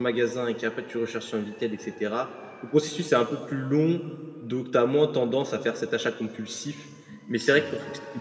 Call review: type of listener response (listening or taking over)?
listening